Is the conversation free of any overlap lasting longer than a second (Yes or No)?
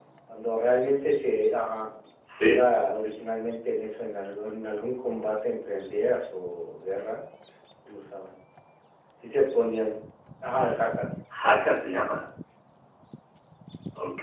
Yes